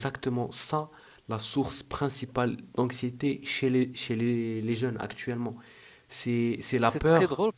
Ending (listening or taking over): taking over